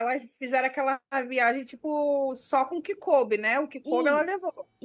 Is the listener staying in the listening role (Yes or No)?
No